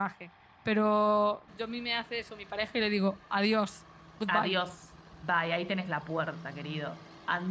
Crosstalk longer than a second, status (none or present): none